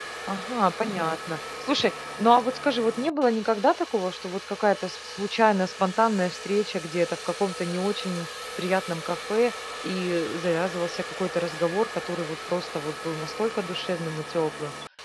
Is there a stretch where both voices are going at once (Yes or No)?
No